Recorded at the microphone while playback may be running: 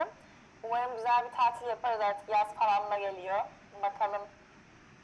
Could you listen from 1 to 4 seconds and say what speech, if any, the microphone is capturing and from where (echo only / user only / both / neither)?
echo only